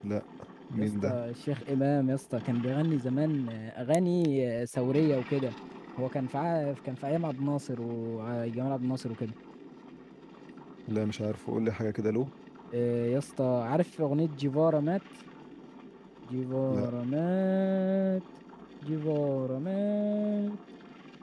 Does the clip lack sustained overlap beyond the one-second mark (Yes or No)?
Yes